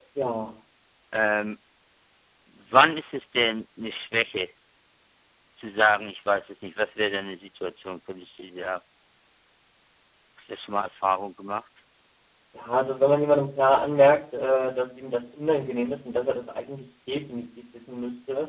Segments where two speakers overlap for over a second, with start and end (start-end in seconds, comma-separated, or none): none